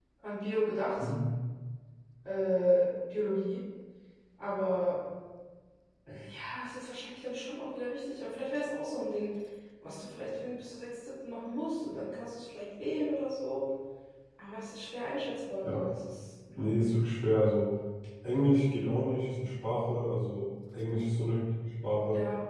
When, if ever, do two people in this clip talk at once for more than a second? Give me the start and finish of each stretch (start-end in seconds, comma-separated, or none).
none